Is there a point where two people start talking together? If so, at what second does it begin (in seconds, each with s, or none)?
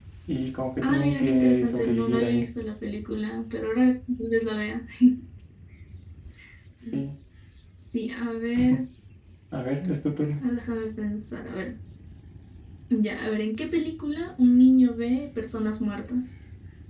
0.8 s